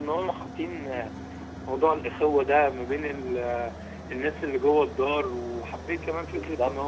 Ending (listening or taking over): listening